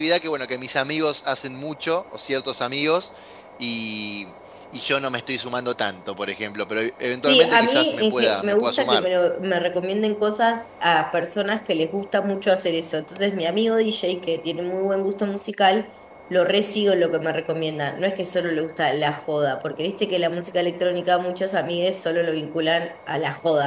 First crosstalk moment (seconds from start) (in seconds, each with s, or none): 7.2 s